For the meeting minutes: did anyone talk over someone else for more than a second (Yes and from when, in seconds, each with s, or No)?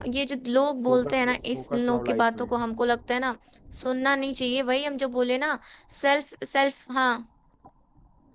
Yes, from 0.9 s